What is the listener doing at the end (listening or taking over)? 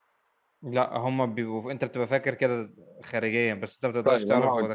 taking over